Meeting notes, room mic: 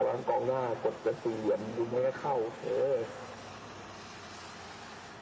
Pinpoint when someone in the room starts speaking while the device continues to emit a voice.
none

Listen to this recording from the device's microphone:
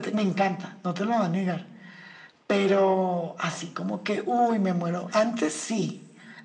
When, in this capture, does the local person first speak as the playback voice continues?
none

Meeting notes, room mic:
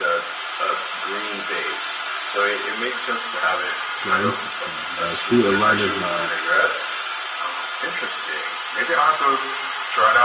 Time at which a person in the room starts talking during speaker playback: 3.9 s

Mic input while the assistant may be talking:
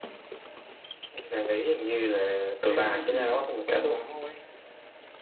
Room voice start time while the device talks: 2.6 s

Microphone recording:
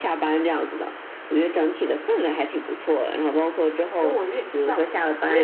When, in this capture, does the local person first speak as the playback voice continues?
4.0 s

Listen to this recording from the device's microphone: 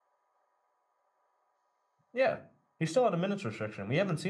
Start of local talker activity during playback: 2.1 s

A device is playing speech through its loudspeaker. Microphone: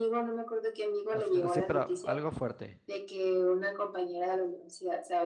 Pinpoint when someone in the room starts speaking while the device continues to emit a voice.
1.2 s

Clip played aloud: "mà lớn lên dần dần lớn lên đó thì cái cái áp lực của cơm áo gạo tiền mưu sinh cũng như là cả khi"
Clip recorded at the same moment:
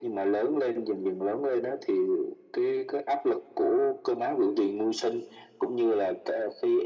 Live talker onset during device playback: none

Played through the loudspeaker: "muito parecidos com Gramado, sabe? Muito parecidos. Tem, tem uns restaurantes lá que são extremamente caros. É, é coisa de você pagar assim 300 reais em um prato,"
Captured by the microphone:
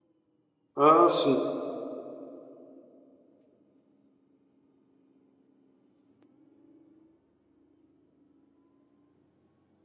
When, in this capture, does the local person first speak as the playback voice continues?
0.8 s

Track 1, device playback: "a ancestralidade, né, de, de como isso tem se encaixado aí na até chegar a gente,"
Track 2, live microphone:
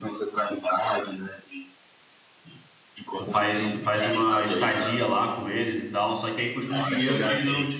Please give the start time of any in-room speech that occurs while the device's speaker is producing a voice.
3.2 s

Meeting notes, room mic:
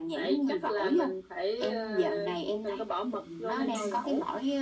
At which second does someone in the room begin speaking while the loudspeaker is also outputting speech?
3.5 s

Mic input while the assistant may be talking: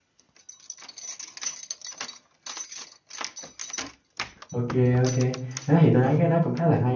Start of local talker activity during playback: 4.5 s

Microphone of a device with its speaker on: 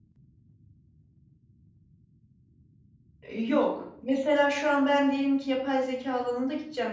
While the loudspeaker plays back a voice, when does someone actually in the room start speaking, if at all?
3.2 s

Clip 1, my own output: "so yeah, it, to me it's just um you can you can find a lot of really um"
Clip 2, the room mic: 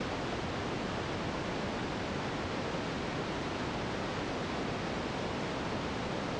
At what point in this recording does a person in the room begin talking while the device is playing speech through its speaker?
none

